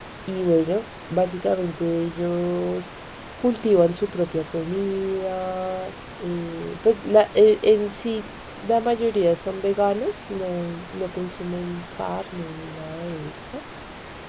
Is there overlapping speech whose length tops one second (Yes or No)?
No